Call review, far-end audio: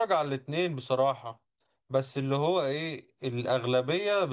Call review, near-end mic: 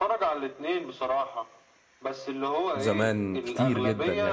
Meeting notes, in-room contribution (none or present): present